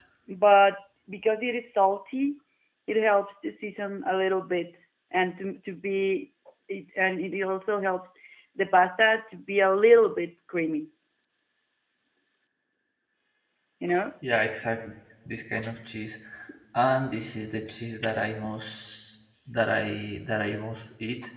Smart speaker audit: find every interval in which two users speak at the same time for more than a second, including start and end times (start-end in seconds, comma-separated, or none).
none